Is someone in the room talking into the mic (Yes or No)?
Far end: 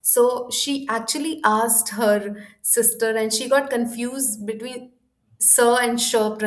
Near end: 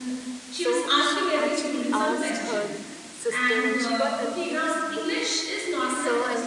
Yes